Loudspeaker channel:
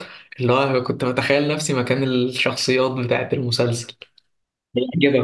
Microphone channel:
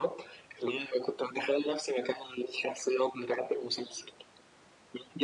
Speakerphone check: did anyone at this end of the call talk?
No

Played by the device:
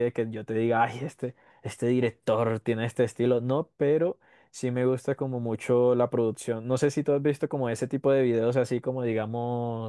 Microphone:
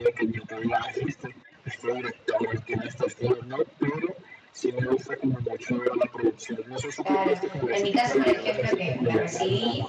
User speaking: Yes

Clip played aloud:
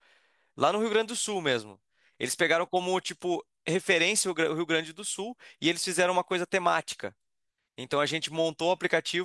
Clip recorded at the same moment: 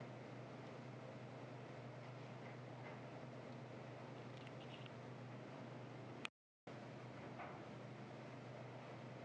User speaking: No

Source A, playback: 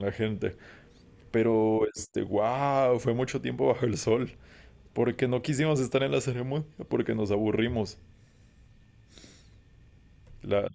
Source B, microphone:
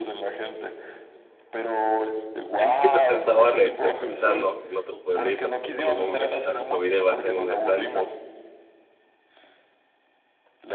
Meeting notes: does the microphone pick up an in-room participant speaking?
Yes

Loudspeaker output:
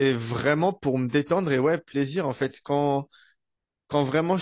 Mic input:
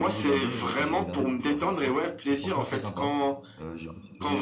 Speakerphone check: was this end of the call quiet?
No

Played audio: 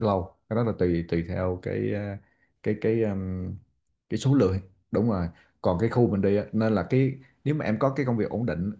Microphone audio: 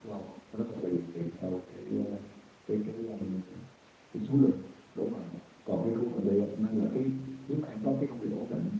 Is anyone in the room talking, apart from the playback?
No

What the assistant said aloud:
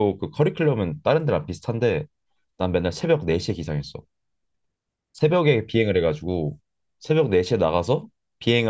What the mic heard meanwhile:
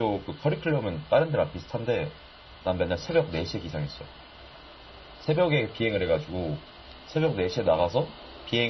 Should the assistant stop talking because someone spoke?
No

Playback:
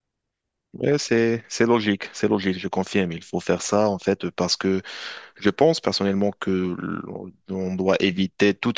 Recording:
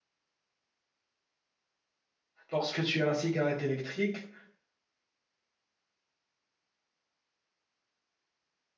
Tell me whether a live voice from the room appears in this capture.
Yes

